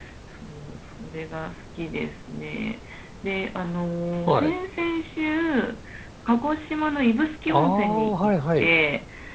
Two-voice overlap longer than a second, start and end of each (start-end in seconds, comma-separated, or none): 7.5-8.7